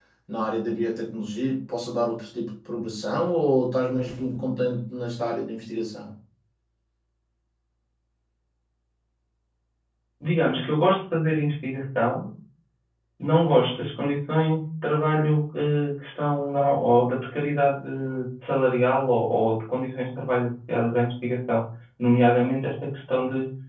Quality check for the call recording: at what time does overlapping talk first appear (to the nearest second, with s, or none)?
none